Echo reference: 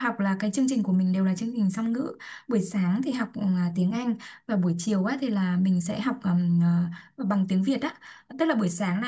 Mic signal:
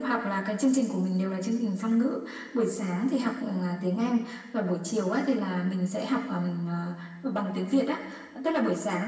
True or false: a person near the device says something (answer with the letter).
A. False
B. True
A